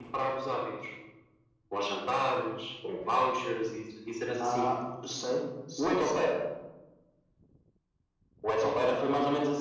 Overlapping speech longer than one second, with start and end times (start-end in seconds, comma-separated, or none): none